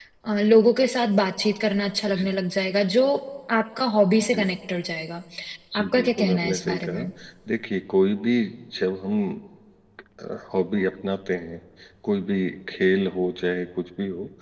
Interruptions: present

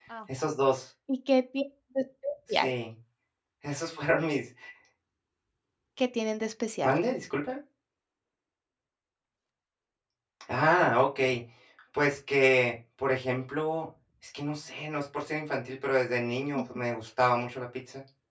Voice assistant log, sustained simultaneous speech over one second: none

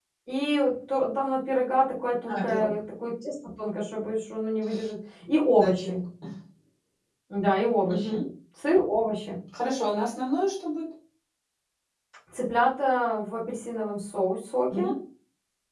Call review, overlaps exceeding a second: none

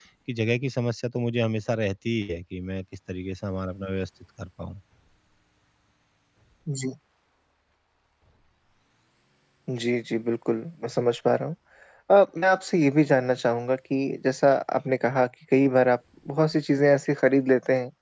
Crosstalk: none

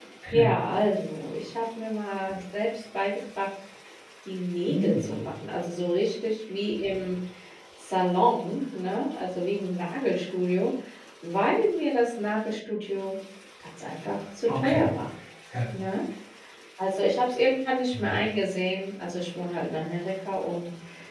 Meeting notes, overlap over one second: none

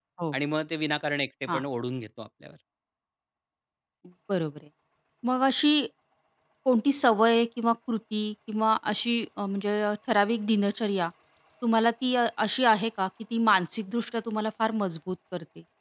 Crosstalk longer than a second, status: none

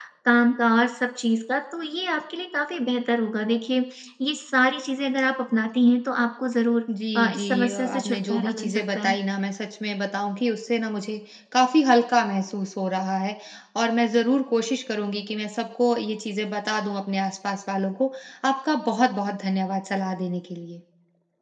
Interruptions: present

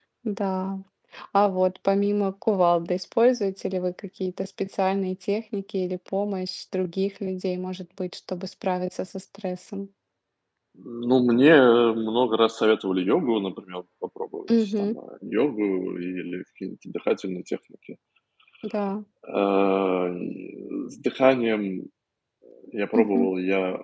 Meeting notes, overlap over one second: none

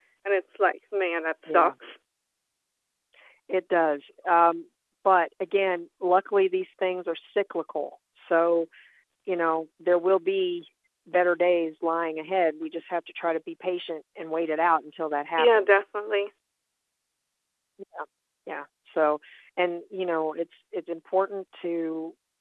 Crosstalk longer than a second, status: none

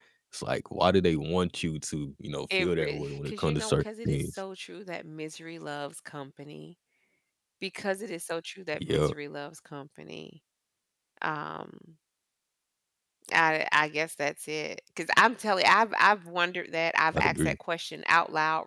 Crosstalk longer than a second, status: present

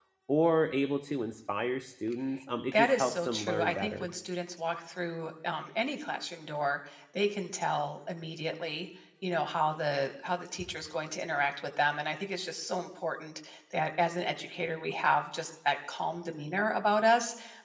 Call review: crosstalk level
present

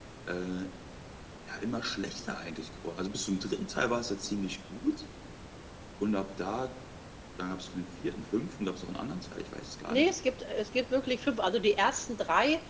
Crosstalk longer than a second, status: none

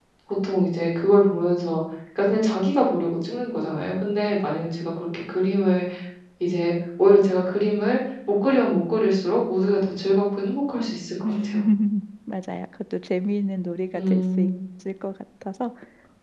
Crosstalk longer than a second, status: none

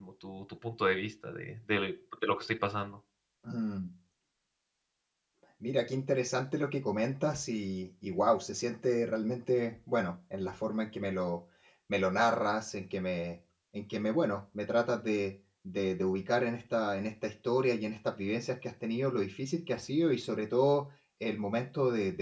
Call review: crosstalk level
none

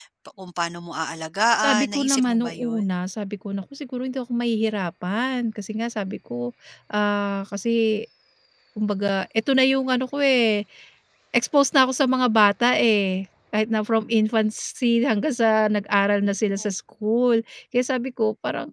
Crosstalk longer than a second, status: present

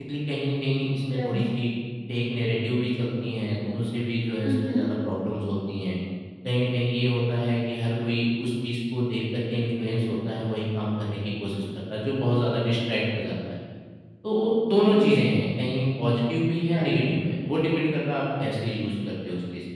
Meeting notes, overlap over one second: none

